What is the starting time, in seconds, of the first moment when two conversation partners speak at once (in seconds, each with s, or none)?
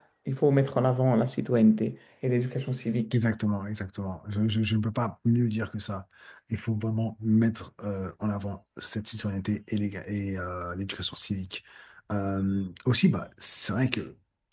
none